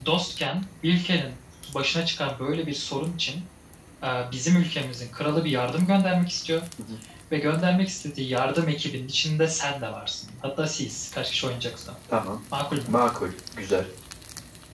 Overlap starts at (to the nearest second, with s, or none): none